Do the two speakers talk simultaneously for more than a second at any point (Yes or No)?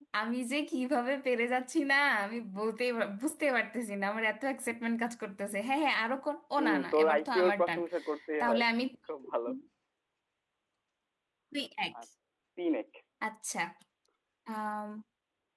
Yes